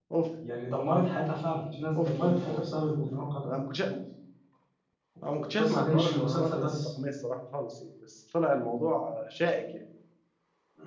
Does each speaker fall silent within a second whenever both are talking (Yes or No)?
No